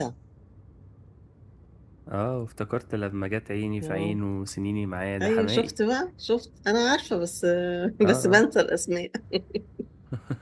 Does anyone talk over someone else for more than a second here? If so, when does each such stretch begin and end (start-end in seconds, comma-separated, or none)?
none